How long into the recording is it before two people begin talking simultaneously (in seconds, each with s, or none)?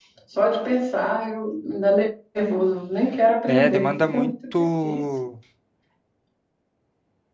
3.5 s